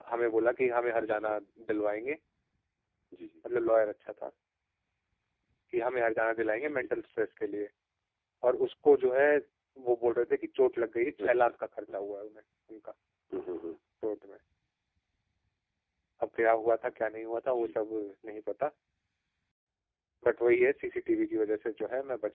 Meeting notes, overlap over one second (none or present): none